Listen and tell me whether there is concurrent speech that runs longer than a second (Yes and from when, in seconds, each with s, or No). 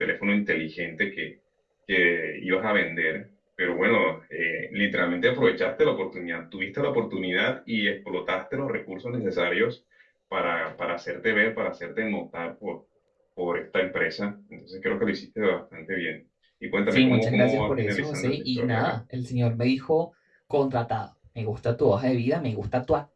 Yes, from 16.9 s